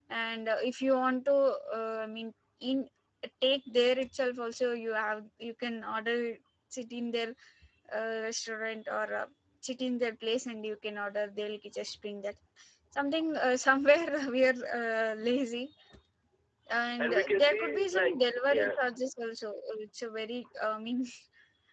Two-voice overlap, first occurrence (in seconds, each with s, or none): 17.0 s